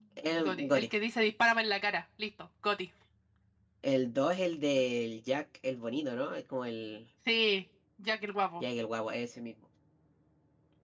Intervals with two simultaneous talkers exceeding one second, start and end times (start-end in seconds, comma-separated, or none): none